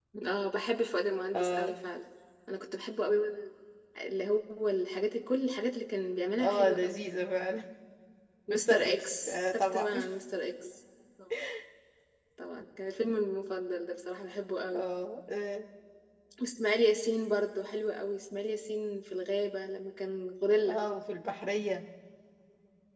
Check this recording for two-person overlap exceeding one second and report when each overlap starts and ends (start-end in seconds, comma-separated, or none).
8.5-9.9